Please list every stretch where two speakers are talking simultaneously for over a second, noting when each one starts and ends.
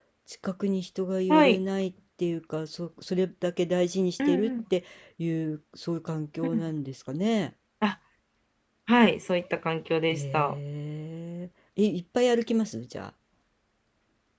none

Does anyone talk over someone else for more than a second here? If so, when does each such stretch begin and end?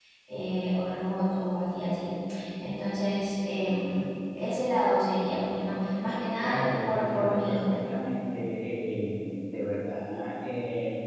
6.4-7.8

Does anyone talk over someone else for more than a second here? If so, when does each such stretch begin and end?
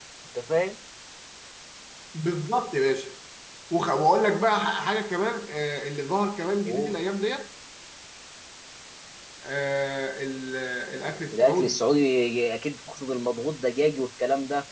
none

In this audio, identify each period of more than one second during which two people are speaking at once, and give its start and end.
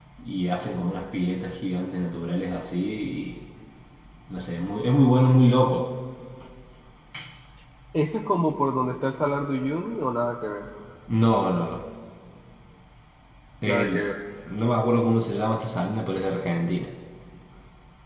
none

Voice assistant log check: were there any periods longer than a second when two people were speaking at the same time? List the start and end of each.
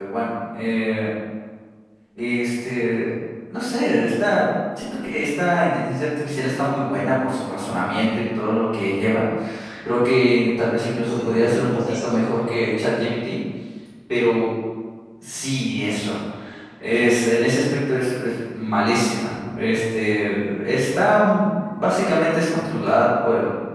11.1-12.3

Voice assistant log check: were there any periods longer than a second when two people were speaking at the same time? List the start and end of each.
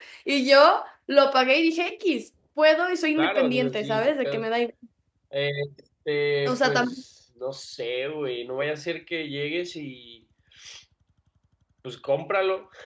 3.2-4.5

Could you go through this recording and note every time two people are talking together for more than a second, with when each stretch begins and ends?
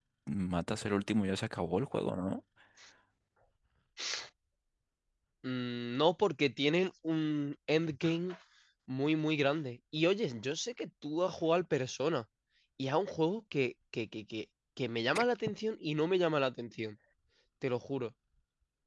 none

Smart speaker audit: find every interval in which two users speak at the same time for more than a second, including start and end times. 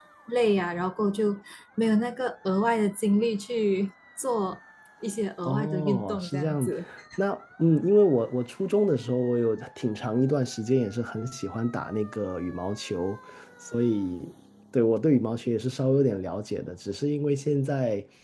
5.4-6.7

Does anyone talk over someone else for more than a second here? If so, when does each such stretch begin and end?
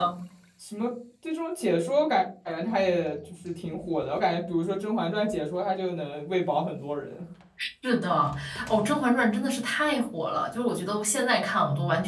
none

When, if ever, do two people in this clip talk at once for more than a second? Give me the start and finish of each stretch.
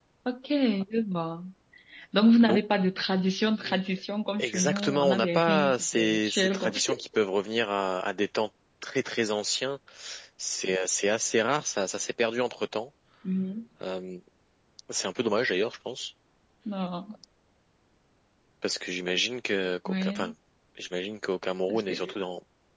4.4-7.0

